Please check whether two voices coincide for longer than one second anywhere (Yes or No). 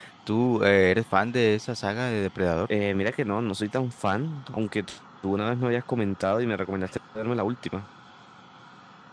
No